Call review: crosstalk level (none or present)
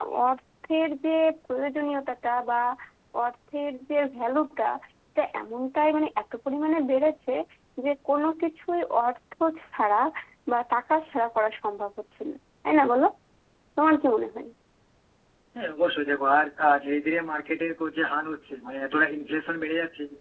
none